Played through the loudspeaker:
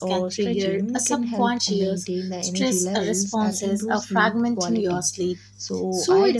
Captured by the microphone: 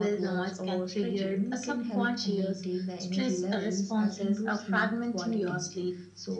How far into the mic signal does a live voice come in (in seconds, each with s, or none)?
none